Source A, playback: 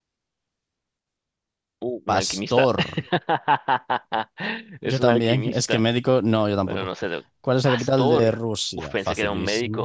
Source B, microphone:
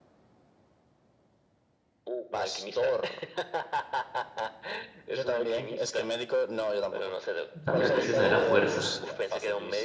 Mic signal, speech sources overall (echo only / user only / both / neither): both